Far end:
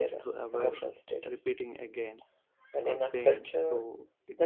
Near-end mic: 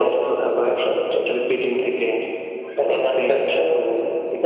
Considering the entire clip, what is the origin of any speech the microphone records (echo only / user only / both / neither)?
echo only